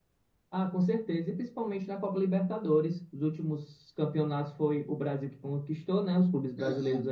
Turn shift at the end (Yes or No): No